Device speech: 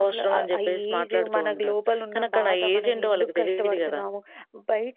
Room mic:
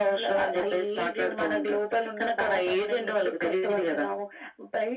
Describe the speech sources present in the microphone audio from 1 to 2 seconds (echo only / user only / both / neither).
echo only